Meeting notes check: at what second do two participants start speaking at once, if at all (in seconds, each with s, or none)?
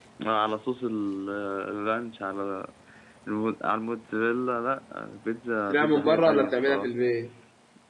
5.7 s